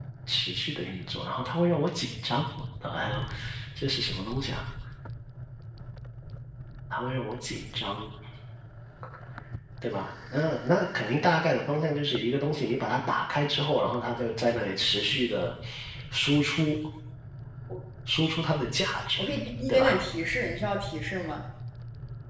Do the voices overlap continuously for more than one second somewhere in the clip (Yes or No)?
No